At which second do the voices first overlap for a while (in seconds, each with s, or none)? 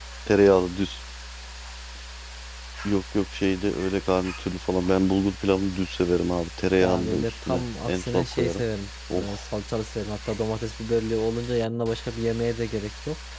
6.8 s